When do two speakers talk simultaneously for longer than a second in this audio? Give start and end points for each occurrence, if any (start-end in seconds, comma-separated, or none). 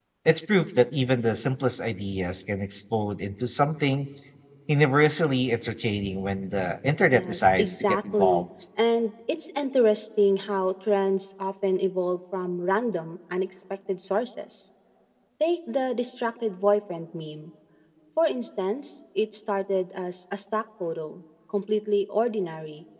7.1-8.4